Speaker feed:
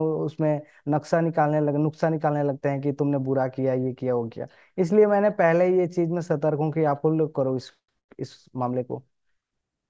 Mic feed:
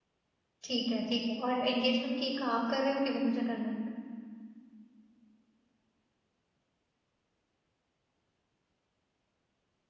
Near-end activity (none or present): present